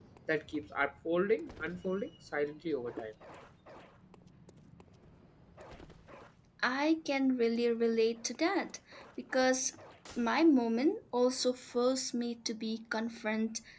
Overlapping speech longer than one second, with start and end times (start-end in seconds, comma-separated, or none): none